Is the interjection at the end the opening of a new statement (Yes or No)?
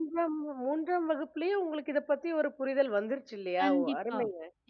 Yes